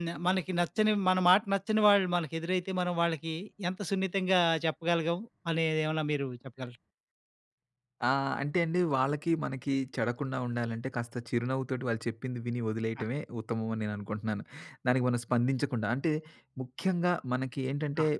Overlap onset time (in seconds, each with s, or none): none